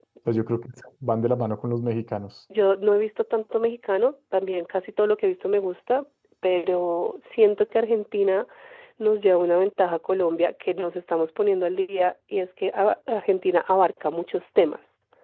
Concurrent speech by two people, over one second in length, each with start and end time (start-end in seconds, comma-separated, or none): none